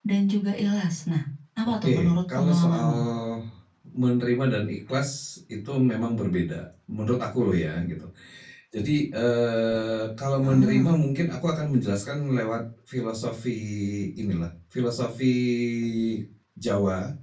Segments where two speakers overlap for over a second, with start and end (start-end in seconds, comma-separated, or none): 1.8-3.0